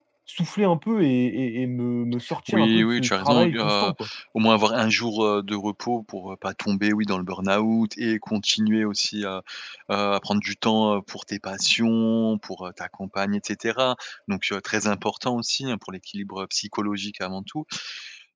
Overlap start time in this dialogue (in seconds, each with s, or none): 2.2 s